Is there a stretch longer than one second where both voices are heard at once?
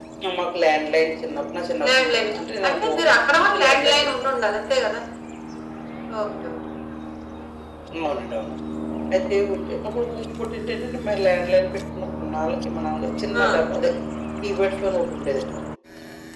Yes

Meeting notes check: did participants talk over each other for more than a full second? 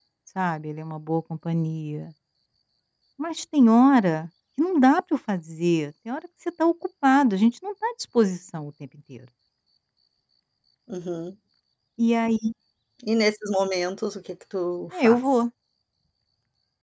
No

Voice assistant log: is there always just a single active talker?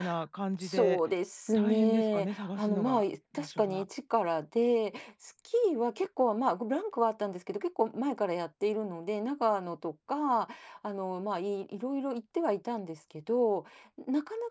No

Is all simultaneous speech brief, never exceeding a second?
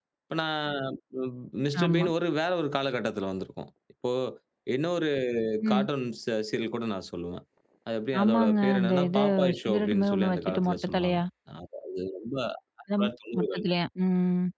No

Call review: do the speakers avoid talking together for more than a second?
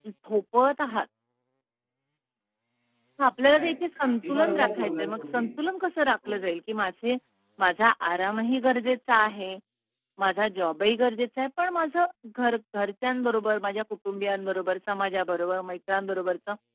No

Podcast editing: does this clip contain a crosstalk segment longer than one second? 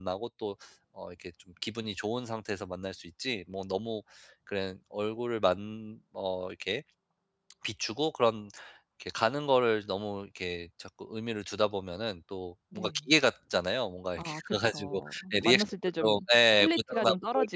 Yes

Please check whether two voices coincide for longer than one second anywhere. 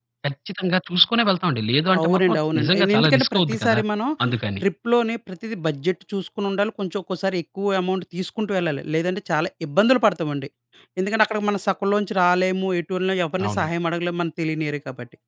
Yes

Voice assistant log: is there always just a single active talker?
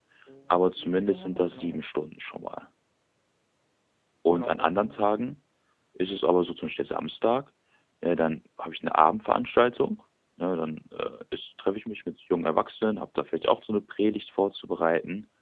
No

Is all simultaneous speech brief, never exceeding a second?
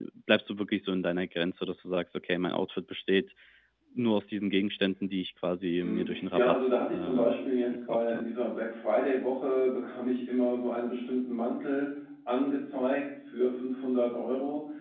No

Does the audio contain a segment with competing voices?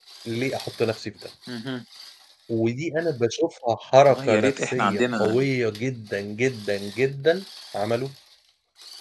Yes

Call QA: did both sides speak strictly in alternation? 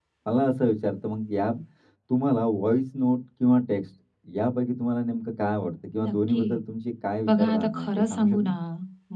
No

